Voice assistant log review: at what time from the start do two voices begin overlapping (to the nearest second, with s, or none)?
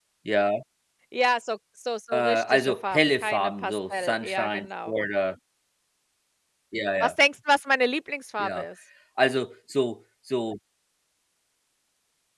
2 s